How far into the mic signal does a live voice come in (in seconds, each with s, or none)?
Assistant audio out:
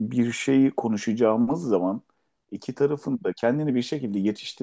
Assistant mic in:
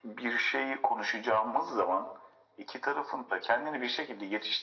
none